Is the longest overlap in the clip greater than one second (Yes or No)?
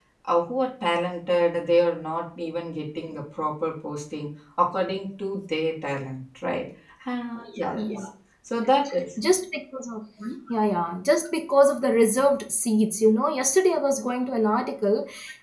No